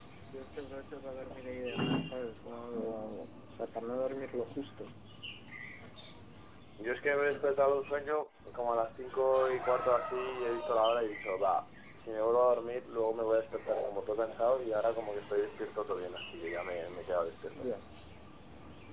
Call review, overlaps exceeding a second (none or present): none